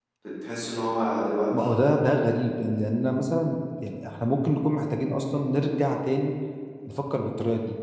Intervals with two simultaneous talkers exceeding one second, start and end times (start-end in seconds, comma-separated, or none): none